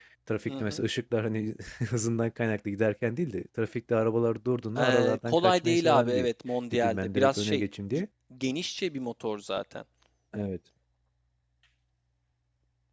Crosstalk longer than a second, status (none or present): present